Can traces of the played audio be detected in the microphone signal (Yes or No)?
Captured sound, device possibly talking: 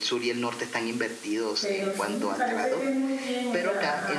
Yes